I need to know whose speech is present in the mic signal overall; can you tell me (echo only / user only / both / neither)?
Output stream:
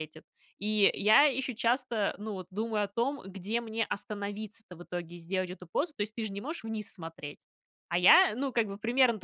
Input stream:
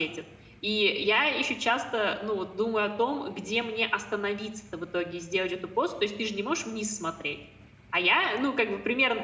echo only